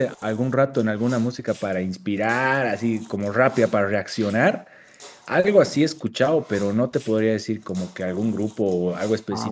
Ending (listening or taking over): taking over